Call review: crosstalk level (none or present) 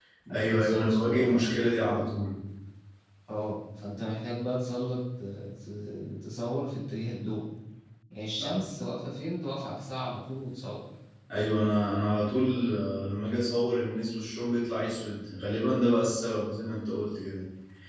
present